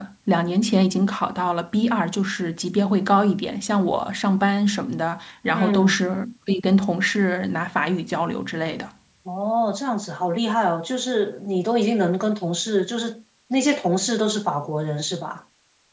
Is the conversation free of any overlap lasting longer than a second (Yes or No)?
Yes